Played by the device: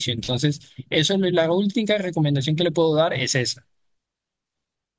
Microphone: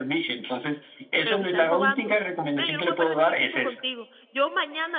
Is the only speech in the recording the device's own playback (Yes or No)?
No